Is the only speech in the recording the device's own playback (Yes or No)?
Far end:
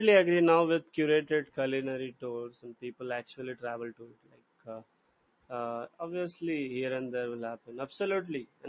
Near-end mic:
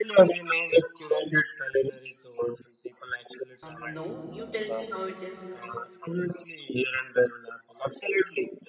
No